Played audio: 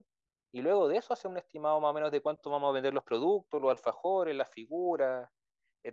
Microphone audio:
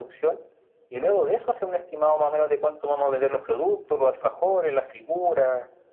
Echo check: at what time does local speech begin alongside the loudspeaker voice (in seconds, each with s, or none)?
none